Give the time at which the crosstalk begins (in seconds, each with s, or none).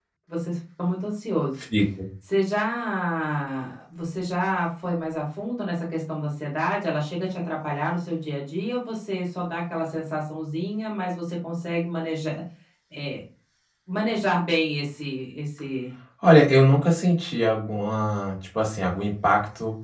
none